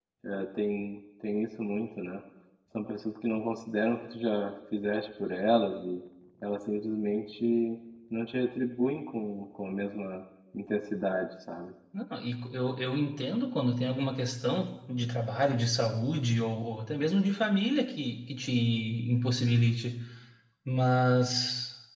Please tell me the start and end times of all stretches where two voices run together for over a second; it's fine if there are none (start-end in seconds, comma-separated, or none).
none